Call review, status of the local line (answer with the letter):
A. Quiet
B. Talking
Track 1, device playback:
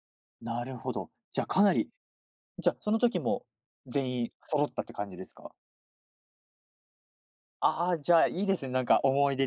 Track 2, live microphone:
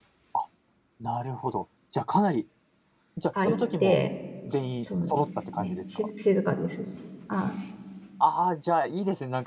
B